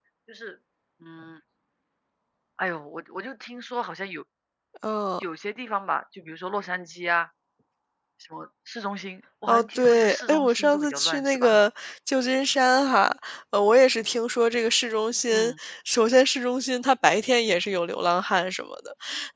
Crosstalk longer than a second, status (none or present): present